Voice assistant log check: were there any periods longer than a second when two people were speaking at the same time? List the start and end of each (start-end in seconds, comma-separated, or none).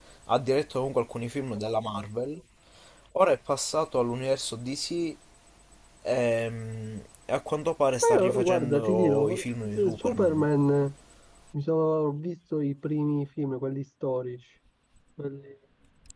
8.0-10.5